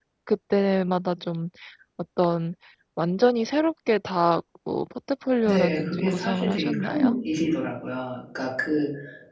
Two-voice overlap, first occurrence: 5.5 s

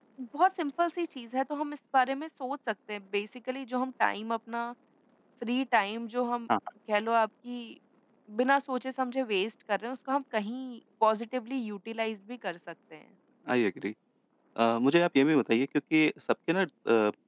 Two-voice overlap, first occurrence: none

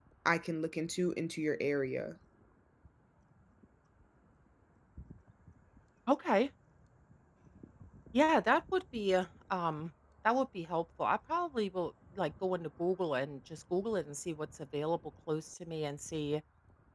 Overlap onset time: none

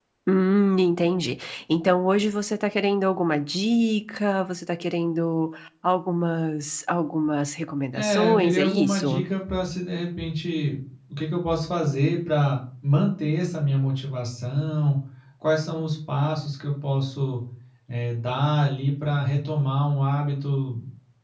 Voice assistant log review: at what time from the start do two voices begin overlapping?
8.0 s

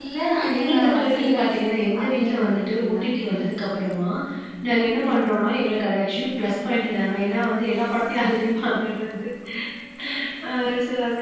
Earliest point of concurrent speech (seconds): 0.6 s

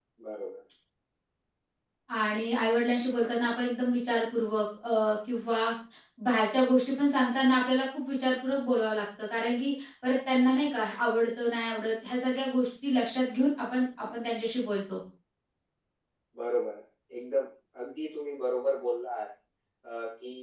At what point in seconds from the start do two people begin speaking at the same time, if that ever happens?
none

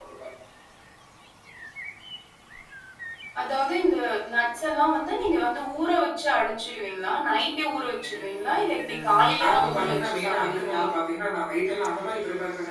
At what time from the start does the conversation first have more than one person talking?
9.4 s

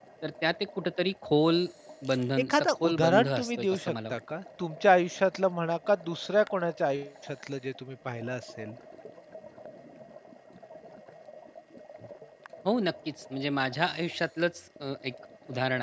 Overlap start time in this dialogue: 2.5 s

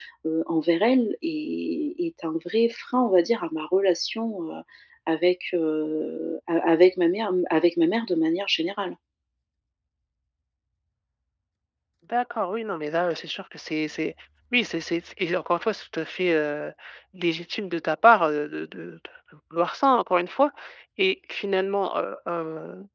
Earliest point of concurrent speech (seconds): none

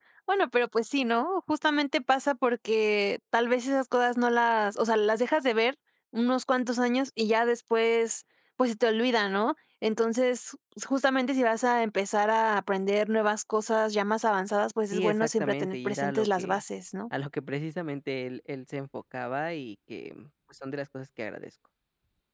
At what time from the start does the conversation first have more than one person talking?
14.9 s

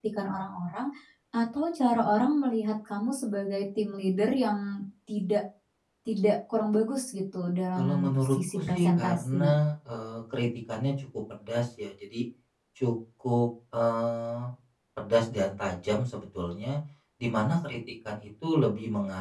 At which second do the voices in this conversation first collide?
7.8 s

